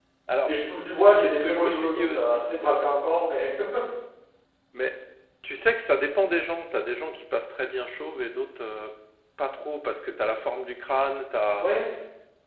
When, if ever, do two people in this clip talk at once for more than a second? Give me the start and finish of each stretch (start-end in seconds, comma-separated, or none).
1.1-2.4